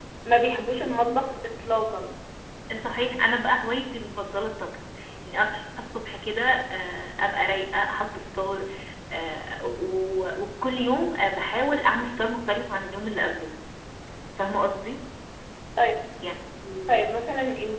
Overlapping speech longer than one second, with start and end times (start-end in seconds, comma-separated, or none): none